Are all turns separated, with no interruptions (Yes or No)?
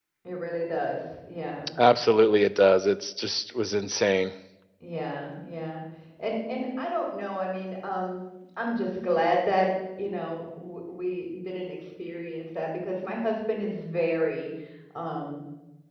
Yes